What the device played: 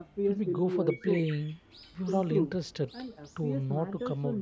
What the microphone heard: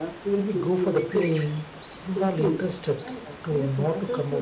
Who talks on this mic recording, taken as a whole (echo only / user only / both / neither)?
echo only